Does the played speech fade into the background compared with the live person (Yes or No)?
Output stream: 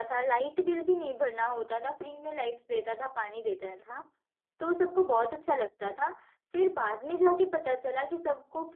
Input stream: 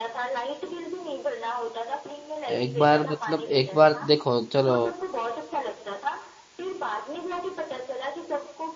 Yes